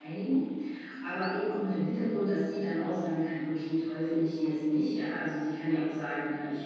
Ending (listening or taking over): listening